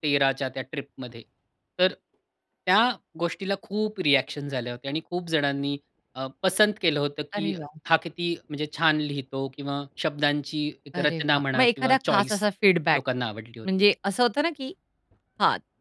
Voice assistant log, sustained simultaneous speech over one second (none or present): present